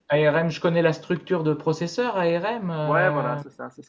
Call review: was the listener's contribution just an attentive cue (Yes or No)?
No